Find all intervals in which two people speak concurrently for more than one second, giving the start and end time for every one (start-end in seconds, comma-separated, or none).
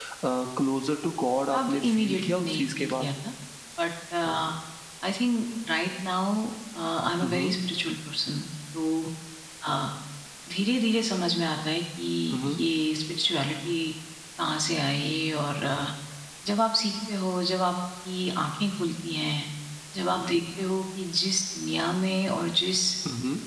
1.5-3.1